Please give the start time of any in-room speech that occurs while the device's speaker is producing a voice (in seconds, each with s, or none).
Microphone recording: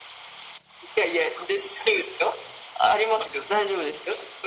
none